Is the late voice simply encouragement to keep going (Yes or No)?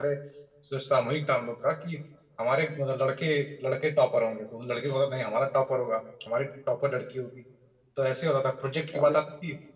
Yes